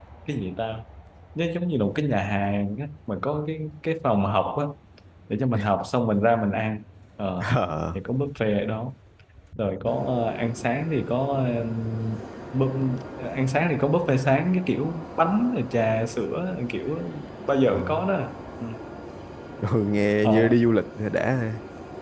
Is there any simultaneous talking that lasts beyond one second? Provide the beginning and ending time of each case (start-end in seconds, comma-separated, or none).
none